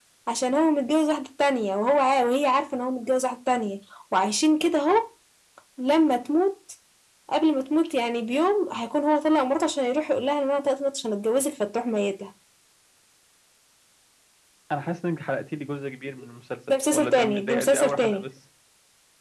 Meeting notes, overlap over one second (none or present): present